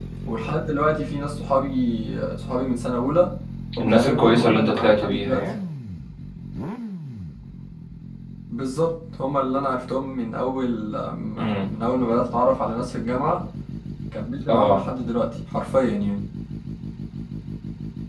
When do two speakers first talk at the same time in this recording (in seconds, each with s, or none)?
3.8 s